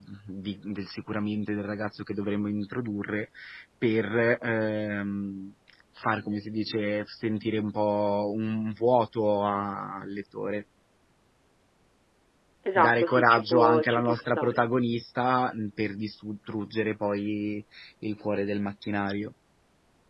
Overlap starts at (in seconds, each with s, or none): 12.8 s